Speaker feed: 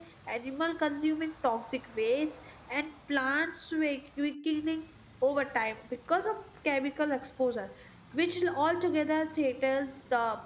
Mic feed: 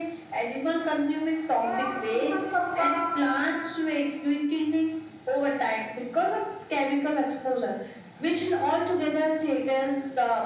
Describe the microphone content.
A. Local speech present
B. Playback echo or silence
A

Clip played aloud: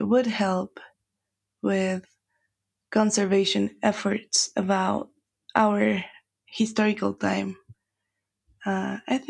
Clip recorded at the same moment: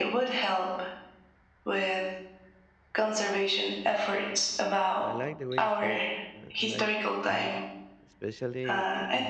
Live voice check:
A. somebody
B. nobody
A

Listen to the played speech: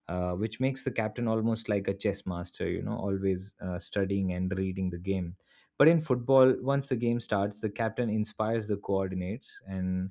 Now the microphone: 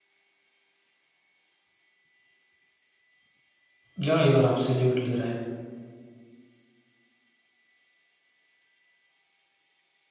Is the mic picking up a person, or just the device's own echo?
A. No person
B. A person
B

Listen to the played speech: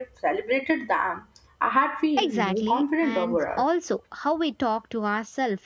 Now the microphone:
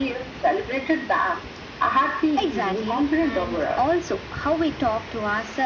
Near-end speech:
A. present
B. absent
B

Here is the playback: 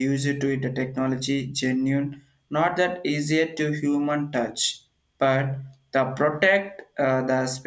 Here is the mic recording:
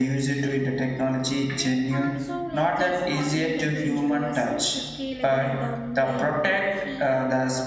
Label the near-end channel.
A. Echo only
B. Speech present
B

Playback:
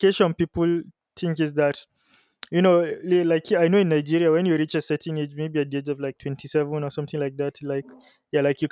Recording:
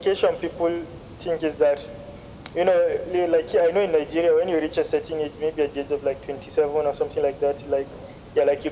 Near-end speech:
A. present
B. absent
B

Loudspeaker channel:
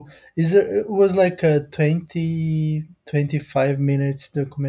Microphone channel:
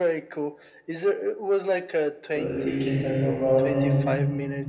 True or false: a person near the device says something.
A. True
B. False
A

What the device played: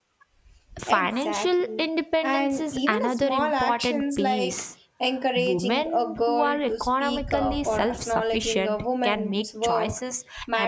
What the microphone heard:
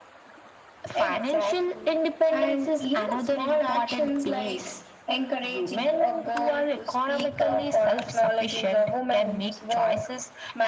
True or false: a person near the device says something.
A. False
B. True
A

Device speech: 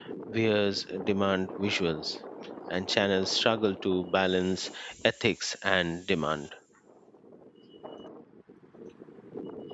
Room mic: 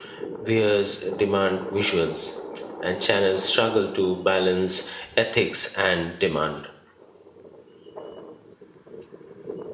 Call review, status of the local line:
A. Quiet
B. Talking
A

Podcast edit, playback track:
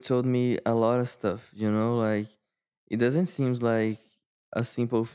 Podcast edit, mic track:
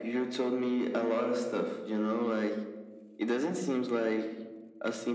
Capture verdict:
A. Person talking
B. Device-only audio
B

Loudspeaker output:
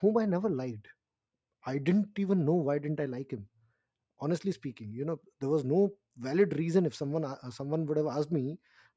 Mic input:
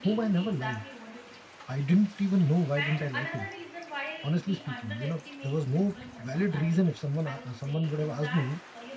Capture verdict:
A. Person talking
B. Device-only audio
A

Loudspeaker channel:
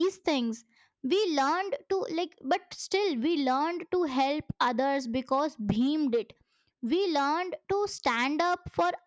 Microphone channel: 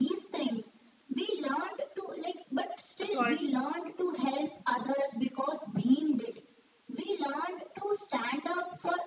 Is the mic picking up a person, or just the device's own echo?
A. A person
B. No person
A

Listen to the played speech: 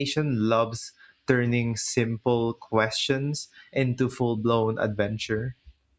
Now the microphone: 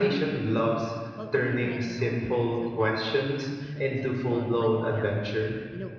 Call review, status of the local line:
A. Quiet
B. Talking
B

